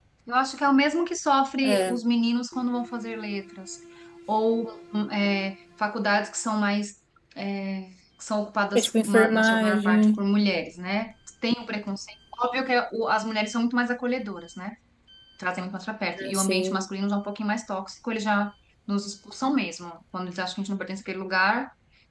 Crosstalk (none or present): present